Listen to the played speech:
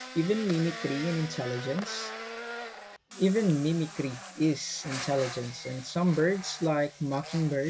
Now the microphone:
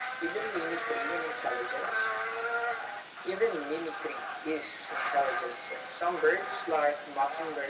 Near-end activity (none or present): none